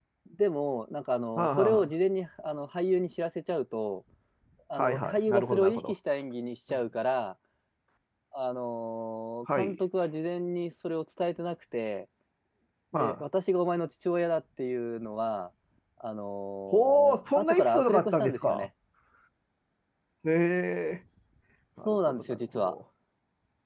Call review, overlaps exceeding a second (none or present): present